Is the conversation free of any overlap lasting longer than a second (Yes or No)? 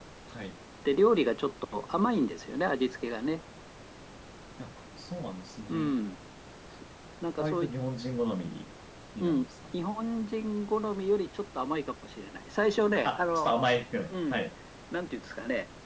Yes